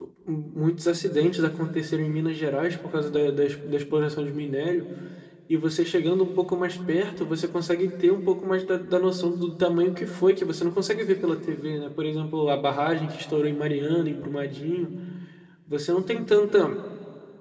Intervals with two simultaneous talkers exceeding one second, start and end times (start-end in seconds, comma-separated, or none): none